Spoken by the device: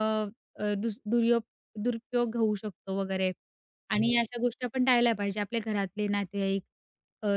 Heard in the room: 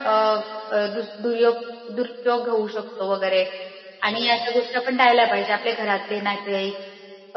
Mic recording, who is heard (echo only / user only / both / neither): echo only